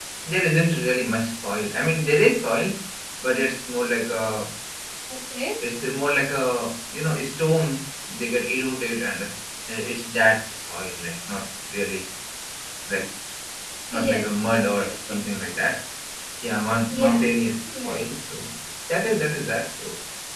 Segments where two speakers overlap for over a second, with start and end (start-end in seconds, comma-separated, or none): 13.9-15.2